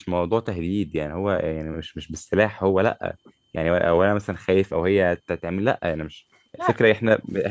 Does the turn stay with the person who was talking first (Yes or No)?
Yes